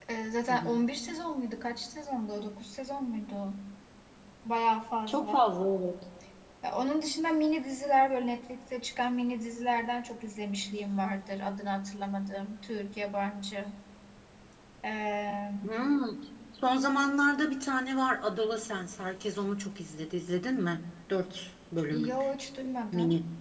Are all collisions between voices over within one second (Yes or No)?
Yes